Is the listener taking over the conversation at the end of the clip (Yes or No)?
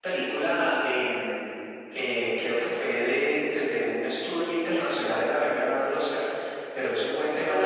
No